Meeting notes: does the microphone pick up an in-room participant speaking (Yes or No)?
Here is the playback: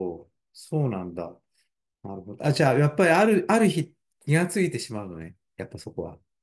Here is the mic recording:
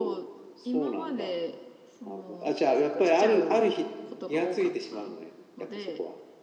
Yes